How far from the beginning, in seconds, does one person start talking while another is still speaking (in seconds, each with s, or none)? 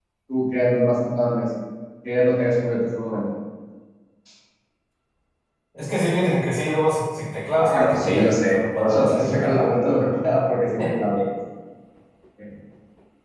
7.6 s